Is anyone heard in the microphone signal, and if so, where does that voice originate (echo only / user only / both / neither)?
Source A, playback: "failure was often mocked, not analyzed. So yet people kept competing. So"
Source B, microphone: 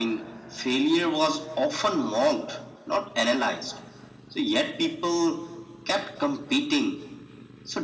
echo only